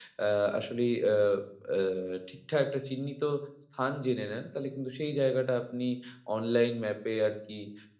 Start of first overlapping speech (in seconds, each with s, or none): none